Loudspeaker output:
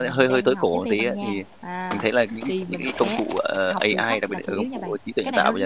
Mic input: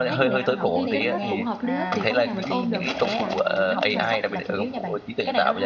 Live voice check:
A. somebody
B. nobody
A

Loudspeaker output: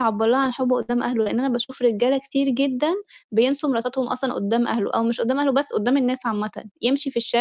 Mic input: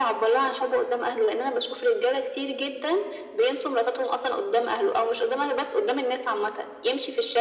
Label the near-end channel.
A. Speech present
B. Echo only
B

